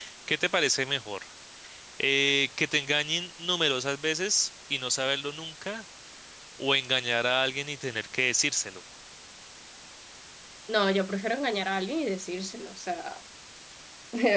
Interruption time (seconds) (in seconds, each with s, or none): none